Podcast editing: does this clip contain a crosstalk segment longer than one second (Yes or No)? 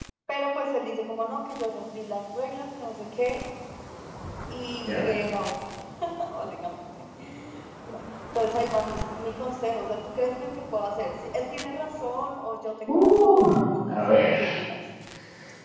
Yes